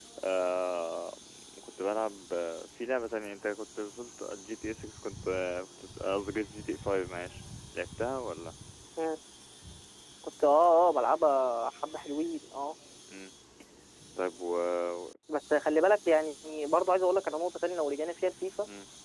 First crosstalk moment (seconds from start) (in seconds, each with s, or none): none